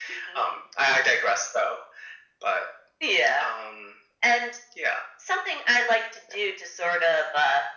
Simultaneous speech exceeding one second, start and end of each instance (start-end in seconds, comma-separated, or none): none